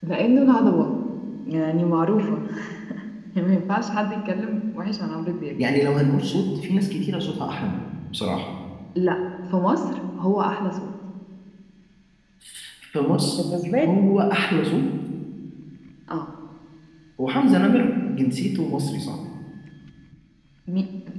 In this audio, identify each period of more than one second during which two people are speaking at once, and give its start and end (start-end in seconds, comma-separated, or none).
none